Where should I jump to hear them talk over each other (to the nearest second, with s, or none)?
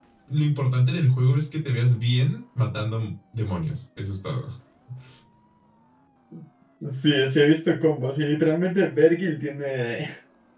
none